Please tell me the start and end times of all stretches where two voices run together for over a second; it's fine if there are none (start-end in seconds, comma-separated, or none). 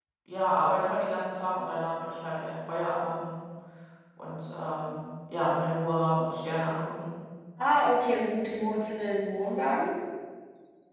none